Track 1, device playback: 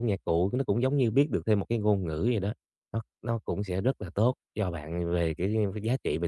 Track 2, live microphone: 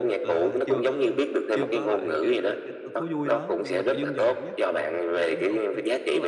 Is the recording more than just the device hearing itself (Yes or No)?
Yes